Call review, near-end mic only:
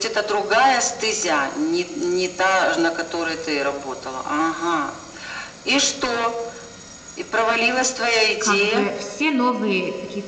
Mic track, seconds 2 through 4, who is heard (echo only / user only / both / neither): echo only